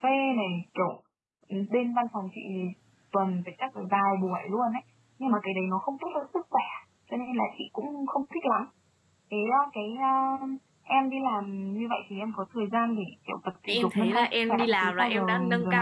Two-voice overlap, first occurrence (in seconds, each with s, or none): 13.7 s